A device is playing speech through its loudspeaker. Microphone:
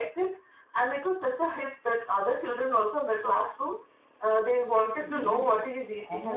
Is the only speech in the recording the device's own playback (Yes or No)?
No